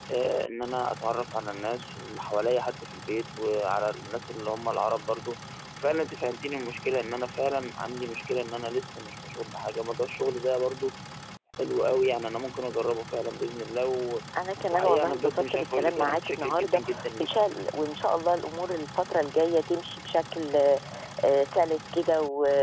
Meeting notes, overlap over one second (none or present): present